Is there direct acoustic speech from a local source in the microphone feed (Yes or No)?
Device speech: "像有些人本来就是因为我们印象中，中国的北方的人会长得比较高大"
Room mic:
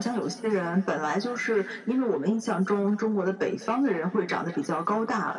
No